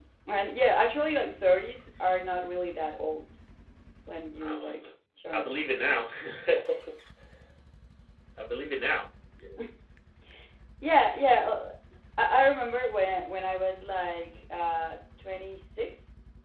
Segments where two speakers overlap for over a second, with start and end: none

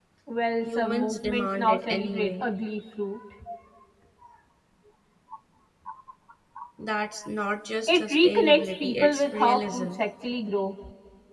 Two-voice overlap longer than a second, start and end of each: 0.6-2.4, 7.9-10.0

